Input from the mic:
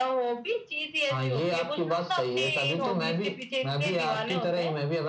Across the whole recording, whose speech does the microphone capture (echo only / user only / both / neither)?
both